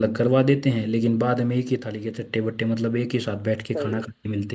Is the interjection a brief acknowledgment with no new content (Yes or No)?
No